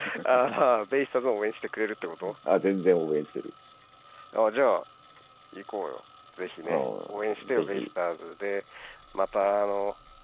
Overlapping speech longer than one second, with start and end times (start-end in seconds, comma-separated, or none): 6.6-7.9